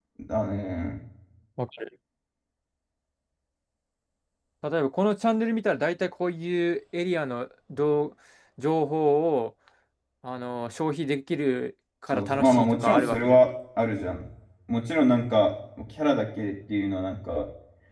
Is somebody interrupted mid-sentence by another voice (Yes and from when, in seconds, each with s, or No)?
Yes, from 12.1 s